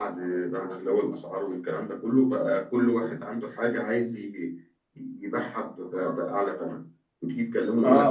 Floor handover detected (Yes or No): Yes